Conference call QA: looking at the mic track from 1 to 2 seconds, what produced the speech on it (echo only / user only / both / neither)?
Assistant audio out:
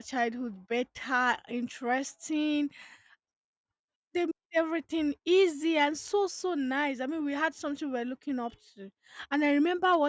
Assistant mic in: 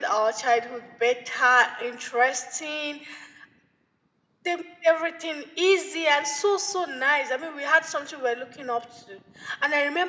echo only